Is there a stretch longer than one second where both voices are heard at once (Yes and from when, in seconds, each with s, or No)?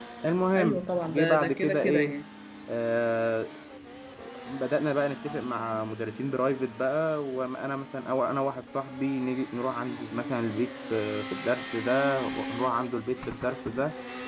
Yes, from 0.6 s